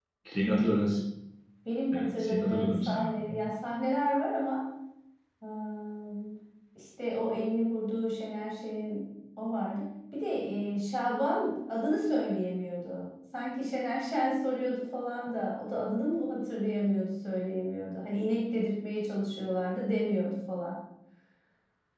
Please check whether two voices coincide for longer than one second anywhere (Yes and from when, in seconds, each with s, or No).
Yes, from 1.9 s